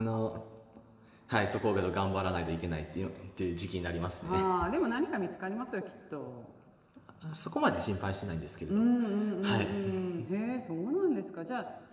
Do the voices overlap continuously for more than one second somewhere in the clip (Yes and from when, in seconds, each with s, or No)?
No